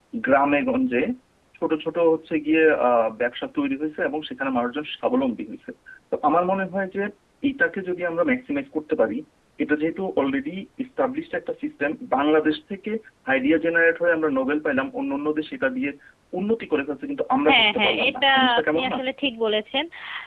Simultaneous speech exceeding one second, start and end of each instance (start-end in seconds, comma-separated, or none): 17.5-19.0